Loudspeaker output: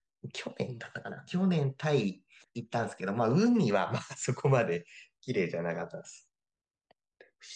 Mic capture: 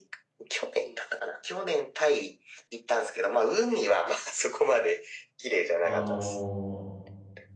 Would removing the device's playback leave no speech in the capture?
No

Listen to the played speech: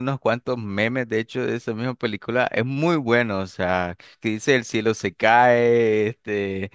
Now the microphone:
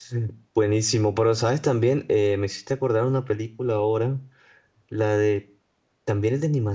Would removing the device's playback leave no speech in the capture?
No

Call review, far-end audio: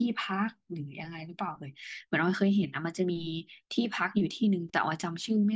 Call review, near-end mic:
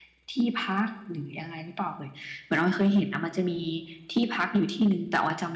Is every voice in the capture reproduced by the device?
Yes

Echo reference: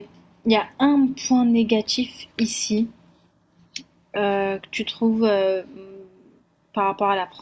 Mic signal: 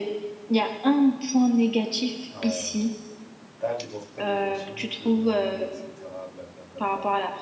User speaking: Yes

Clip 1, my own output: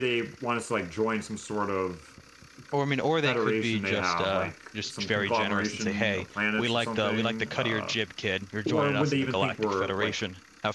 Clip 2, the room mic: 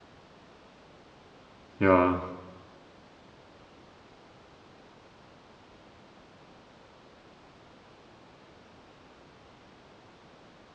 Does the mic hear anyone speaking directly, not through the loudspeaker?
Yes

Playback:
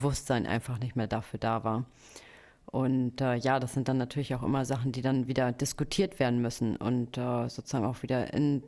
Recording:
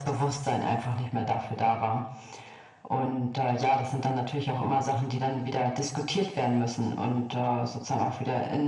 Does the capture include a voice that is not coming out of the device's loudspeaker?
No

